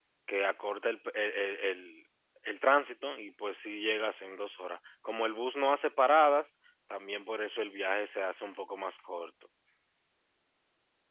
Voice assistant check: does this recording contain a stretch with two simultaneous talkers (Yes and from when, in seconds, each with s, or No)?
No